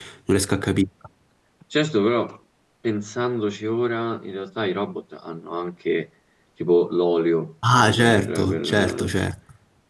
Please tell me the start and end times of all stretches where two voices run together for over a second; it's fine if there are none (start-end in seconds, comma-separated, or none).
7.8-9.1